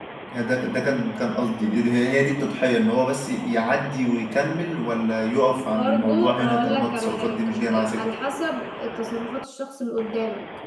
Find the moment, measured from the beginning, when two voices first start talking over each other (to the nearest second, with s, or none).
6 s